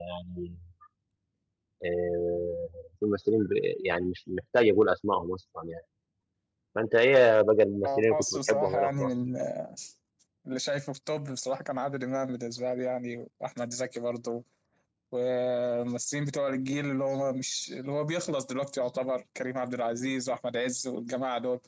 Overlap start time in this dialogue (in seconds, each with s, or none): 7.8 s